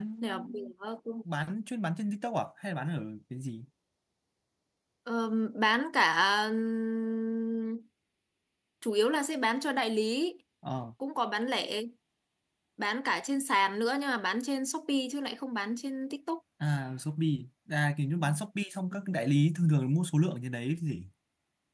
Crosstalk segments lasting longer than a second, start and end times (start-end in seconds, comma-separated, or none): none